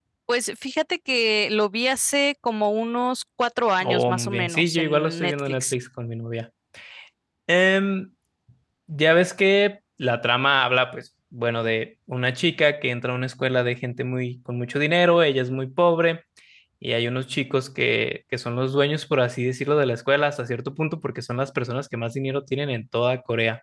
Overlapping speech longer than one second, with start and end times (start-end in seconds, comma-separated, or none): 3.8-5.7